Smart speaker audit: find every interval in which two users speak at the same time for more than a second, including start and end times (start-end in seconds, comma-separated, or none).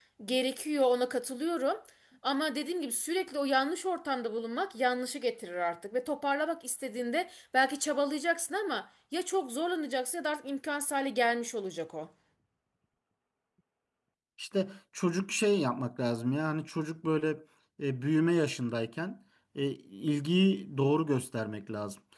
none